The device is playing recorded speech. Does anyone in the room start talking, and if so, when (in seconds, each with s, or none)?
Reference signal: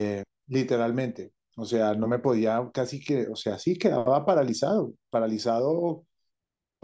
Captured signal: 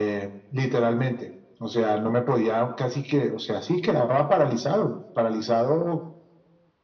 none